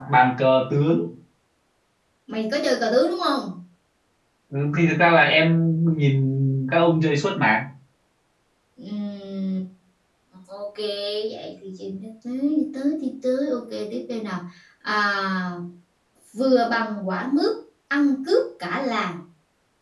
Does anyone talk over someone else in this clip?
No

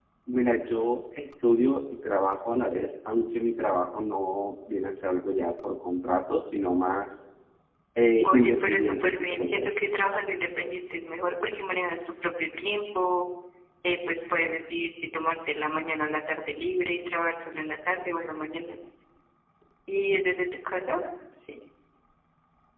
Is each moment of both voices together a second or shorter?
No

